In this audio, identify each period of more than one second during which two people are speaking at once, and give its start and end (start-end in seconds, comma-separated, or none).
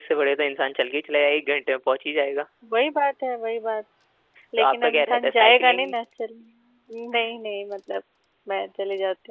4.6-5.9